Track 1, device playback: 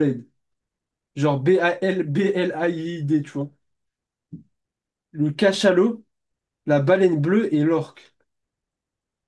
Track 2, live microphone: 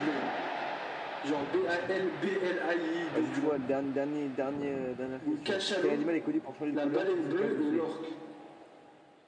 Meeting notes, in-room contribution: present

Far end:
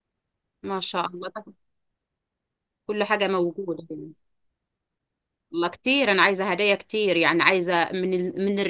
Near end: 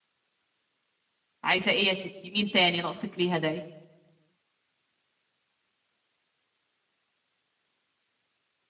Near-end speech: present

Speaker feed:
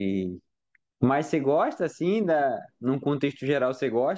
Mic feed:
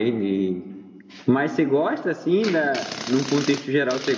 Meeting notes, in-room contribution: none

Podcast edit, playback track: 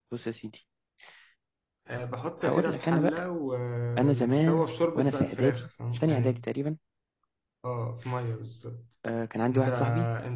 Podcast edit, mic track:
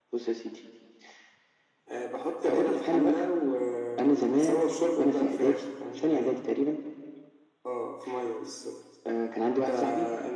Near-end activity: none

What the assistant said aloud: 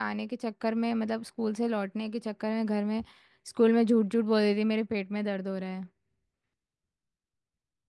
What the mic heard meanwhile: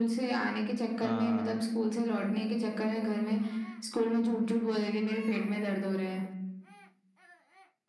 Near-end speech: present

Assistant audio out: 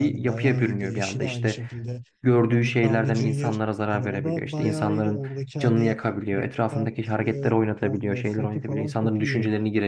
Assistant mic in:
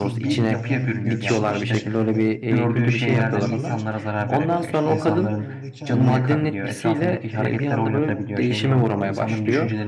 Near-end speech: present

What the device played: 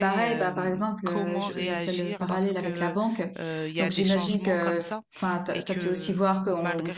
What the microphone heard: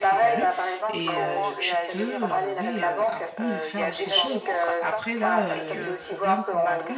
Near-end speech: present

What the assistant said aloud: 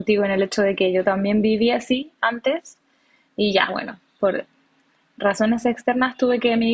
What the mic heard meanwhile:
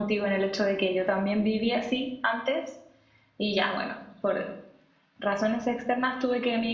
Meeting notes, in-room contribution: none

